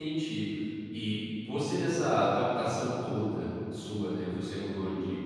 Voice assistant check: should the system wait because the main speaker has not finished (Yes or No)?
Yes